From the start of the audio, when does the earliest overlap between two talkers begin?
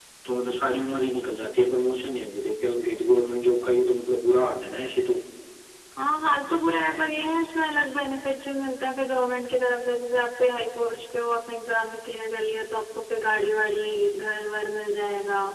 none

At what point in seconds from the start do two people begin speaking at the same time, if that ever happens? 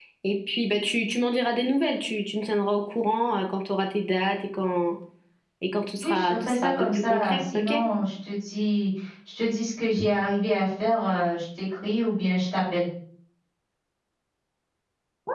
6.0 s

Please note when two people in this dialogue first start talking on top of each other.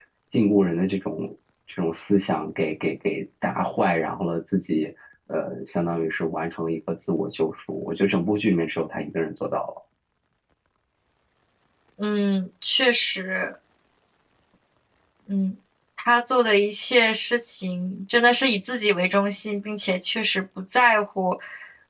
none

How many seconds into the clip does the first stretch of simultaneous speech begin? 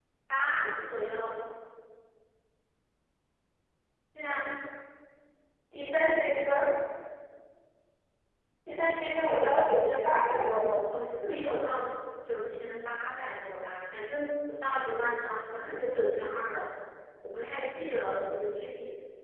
none

